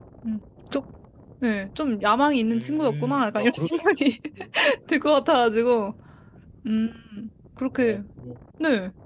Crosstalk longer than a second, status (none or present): present